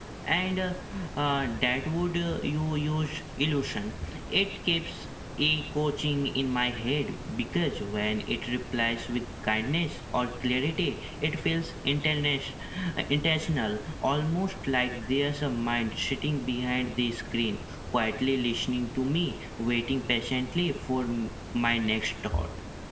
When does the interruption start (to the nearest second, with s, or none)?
none